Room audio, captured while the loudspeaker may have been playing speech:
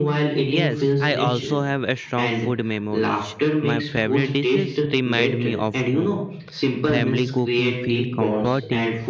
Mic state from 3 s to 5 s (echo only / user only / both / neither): both